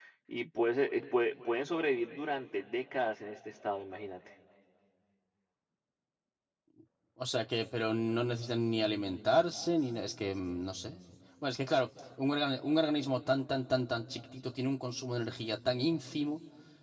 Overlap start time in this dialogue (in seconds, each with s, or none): none